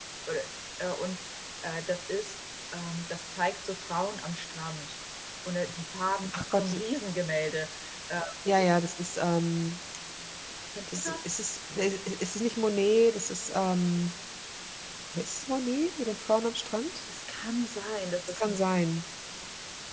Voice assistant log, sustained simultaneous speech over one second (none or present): none